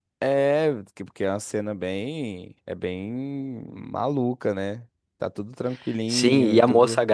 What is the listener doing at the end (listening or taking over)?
taking over